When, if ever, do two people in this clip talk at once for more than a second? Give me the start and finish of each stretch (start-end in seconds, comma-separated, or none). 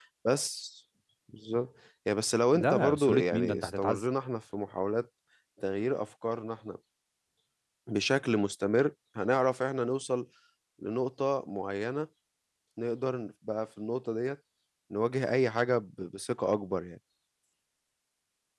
2.6-4.0